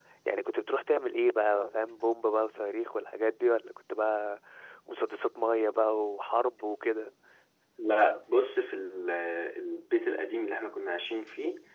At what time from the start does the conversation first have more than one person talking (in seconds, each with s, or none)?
none